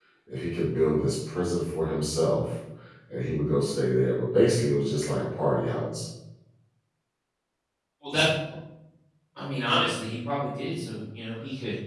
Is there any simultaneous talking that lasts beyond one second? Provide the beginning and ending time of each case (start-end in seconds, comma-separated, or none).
none